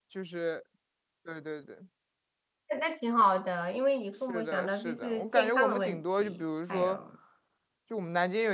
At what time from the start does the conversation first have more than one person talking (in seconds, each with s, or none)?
4.3 s